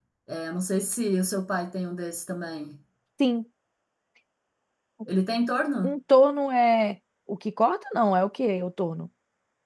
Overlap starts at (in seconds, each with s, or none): none